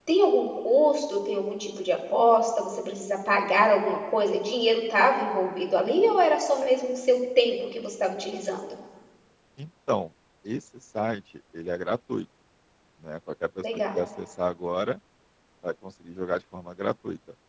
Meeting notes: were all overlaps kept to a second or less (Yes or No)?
Yes